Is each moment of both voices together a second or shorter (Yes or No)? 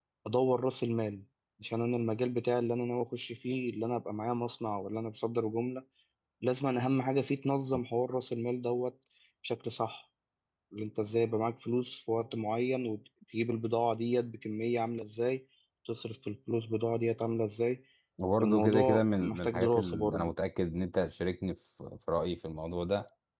No